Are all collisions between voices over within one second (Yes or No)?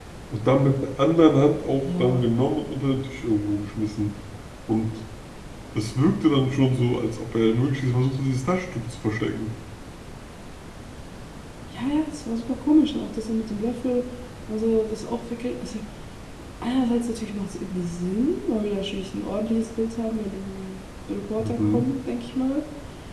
Yes